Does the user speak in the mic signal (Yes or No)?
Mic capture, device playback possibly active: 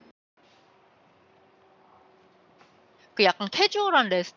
Yes